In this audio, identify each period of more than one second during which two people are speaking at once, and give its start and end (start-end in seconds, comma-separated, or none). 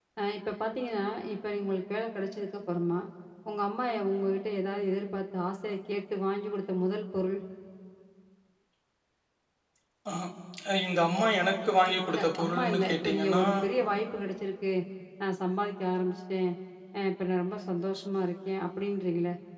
12.1-13.4